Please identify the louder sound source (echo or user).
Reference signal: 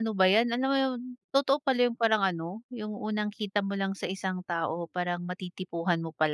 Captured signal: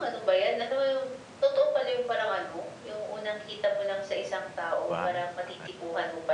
echo